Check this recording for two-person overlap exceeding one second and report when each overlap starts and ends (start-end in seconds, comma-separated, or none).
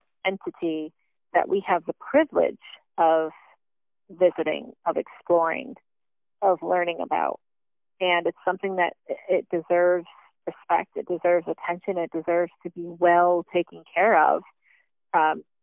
none